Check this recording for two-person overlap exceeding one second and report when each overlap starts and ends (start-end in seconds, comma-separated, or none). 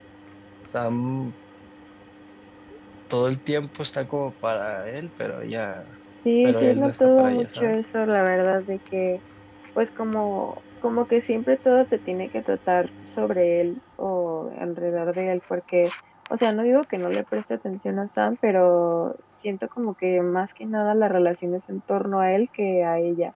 6.4-7.8